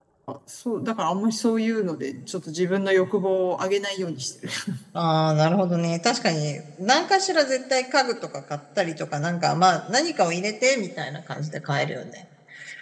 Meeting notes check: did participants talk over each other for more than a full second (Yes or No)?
No